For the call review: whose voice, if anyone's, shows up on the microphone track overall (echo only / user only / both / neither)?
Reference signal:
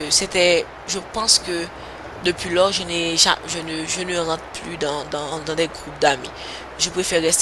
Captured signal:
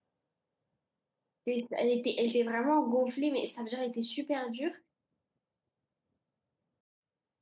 user only